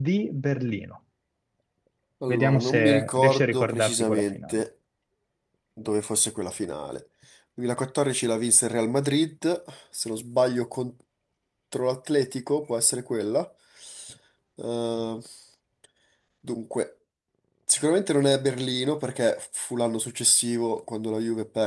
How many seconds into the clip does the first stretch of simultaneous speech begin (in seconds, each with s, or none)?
2.3 s